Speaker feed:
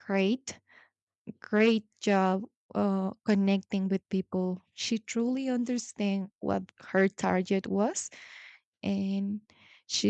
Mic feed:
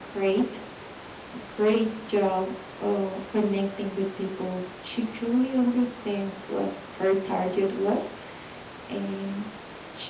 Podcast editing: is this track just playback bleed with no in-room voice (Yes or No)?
Yes